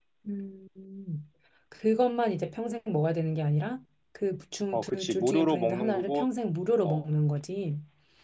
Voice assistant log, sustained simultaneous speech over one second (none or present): present